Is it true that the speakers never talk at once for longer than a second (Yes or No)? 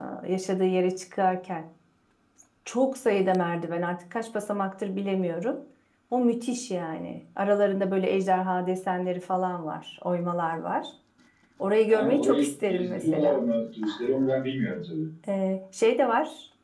No